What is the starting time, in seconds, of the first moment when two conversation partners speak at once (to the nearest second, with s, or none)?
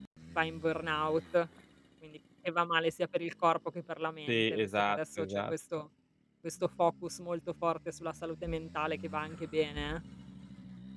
4 s